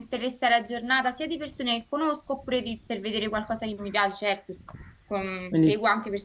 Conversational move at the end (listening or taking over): listening